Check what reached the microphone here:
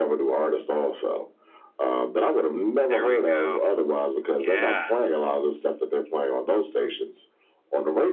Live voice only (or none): There we go. Yeah.